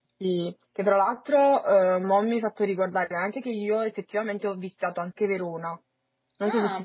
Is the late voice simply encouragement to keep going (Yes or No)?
No